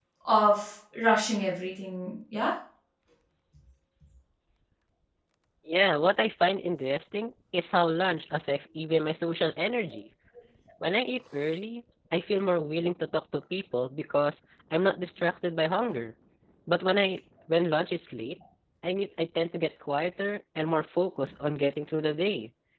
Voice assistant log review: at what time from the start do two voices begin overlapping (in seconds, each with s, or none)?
none